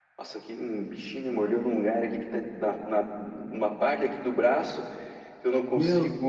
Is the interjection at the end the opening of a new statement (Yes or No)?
No